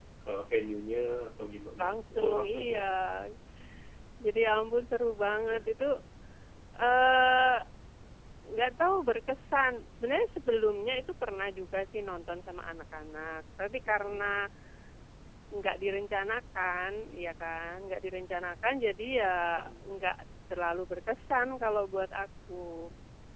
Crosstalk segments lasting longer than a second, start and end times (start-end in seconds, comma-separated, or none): 1.8-3.0